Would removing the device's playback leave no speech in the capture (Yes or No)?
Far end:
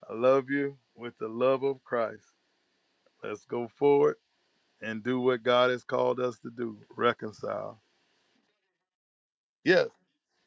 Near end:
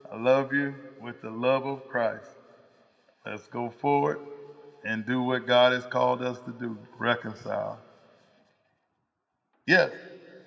Yes